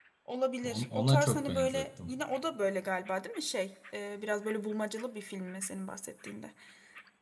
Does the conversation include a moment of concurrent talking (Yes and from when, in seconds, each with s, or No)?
Yes, from 0.6 s